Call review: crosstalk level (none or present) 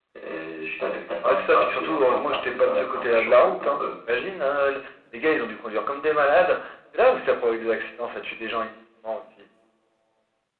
present